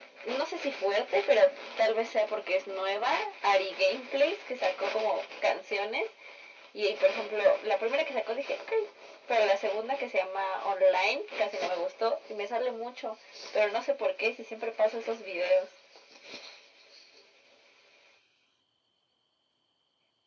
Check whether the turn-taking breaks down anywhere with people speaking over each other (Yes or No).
No